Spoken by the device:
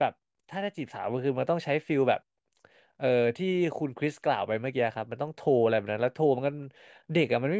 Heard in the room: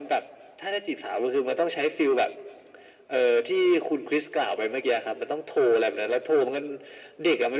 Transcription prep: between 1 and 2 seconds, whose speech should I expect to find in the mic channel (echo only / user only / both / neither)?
echo only